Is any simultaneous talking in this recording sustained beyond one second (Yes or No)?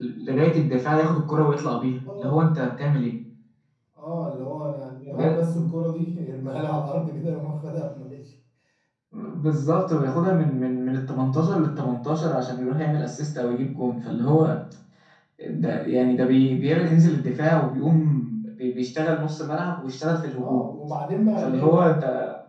No